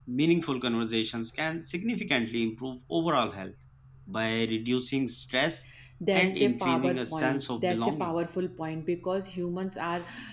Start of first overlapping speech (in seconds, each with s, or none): 6.1 s